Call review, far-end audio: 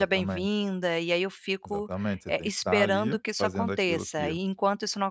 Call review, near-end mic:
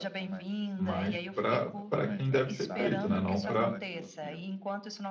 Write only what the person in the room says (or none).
mas pra pra quem deve ser feito, né, não pra